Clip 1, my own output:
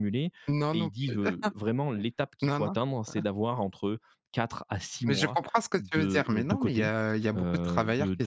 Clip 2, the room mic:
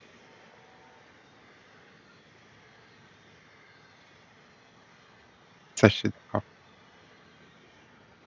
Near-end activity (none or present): present